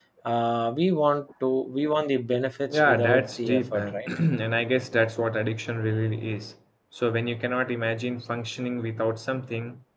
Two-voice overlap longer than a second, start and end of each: 2.7-4.1

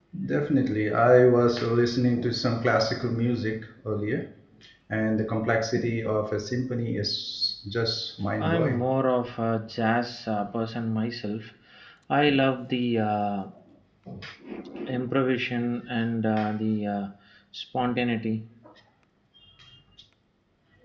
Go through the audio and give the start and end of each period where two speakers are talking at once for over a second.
none

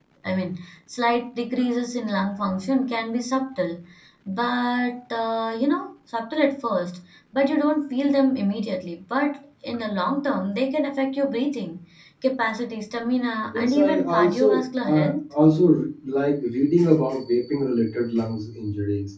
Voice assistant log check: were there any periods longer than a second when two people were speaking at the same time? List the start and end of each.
13.5-15.1

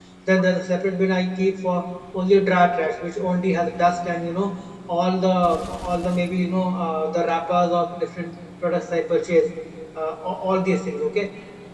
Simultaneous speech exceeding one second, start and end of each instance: none

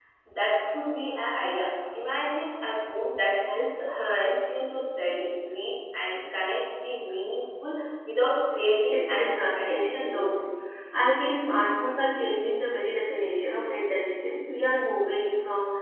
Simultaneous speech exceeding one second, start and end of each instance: 8.9-10.4

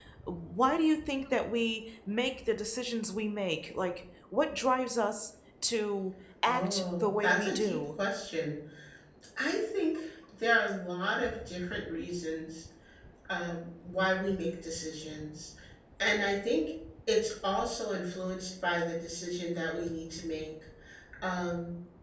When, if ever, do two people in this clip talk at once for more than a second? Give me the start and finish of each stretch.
6.5-7.8

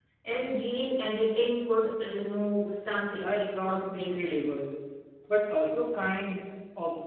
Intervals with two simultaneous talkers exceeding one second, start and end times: 3.1-4.4

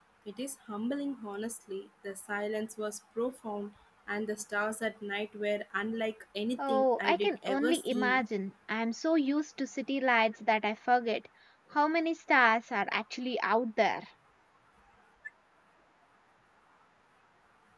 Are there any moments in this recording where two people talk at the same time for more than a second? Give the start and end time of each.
6.6-8.3

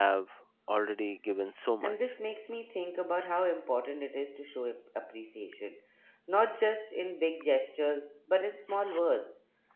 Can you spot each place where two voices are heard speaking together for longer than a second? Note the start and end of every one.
none

